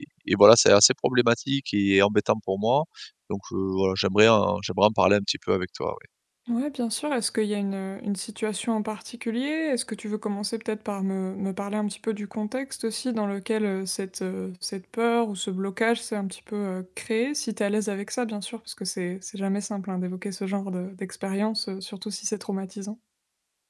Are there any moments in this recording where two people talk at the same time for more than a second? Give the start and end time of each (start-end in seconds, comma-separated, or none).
none